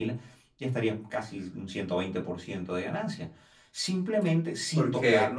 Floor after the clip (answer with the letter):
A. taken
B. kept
B